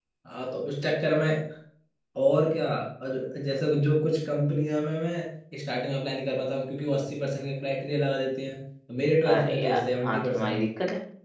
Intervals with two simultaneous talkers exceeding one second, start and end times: 9.2-10.7

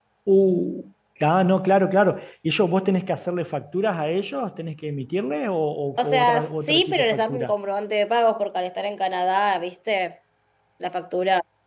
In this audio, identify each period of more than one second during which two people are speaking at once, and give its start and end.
6.0-7.5

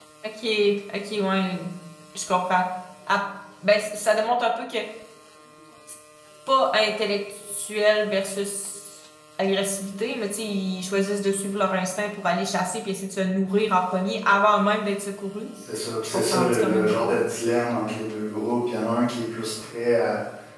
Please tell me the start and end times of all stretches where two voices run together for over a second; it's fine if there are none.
15.7-17.2

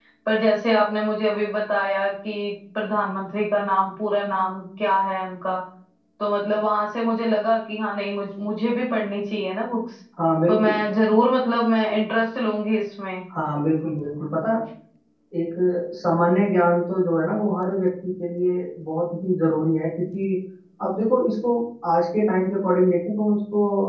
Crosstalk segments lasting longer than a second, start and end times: none

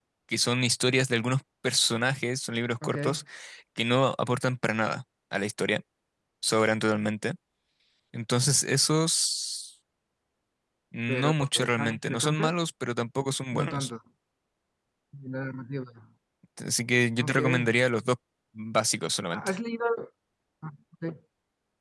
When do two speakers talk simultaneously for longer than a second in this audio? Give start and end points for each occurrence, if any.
11.1-12.6

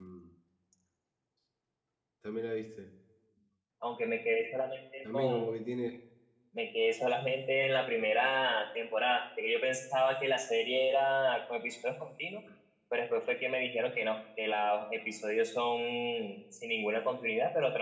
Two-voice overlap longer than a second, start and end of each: none

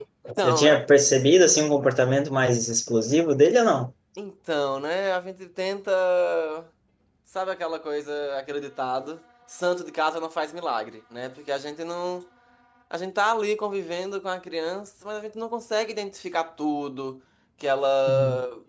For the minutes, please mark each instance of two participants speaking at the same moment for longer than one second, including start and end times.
none

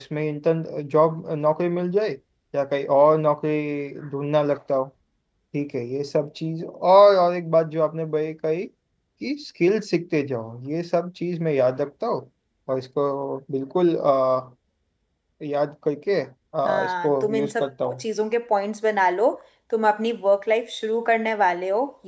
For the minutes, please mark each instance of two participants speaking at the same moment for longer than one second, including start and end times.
16.6-18.0

